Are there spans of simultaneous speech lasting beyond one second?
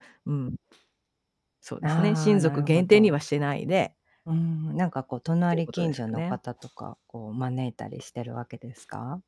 Yes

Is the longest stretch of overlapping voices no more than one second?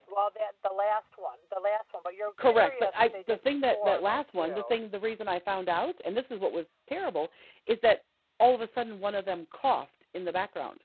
No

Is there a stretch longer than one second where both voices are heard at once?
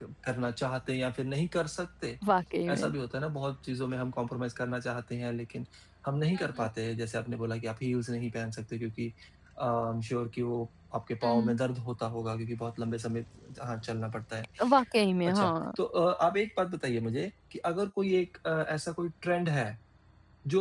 No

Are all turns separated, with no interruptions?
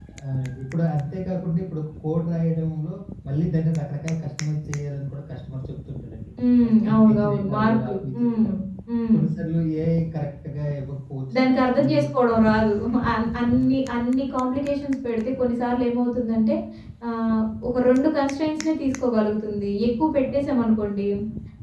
No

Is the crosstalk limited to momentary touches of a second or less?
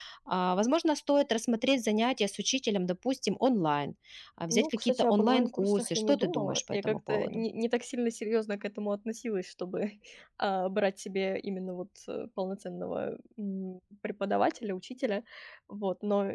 No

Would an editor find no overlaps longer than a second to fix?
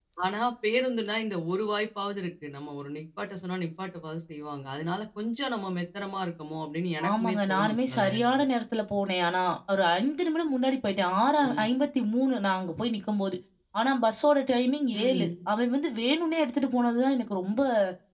No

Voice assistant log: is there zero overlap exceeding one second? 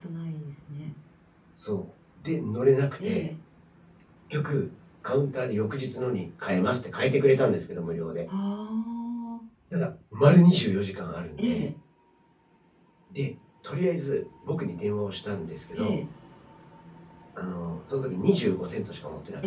Yes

